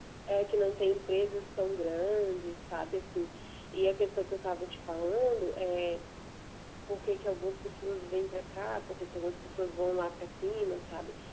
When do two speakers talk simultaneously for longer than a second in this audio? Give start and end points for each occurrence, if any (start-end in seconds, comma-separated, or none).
none